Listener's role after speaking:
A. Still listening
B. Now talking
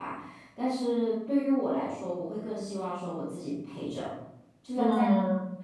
A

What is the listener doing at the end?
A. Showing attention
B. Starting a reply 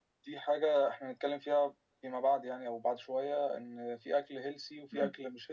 A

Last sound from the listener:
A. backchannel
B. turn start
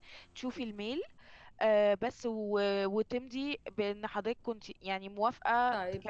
B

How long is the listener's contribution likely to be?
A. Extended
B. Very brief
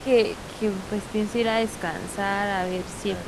B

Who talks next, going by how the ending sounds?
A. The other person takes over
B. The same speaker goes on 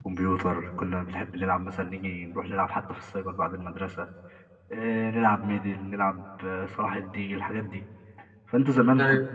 B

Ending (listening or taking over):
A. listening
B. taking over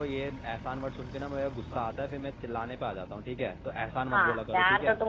B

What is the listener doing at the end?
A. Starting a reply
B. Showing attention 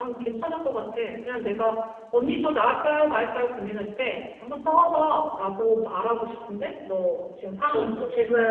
A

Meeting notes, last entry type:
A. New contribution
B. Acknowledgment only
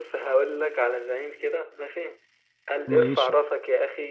B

